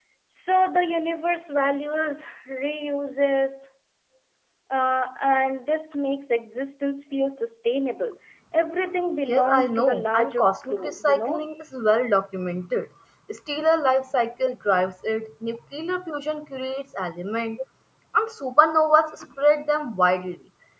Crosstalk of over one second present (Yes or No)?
Yes